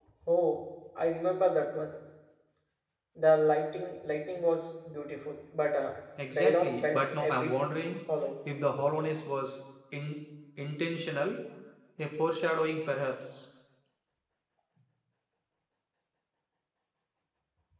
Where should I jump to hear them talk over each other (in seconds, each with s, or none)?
6.2 s